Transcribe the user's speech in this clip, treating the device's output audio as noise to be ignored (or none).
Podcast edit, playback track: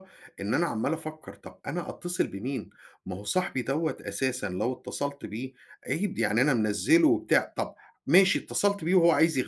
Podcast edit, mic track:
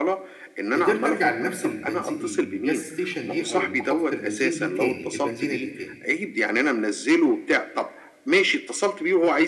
قدرت أرجع لنفْس البنزي الgas station دي أو محطة البنزين دي تاني، البنزينة دي تاني،